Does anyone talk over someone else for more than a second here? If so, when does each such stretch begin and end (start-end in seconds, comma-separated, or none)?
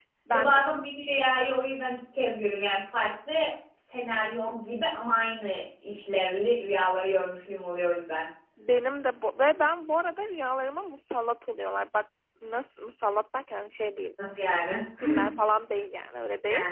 none